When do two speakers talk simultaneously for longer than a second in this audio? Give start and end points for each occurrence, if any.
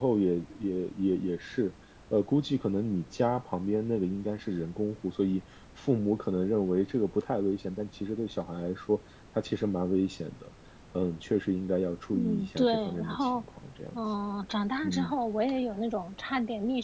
12.1-13.4

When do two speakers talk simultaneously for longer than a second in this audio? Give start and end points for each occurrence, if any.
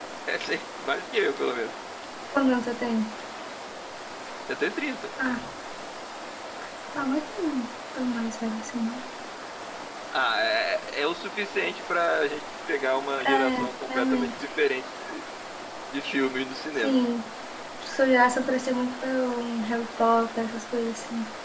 13.2-14.4

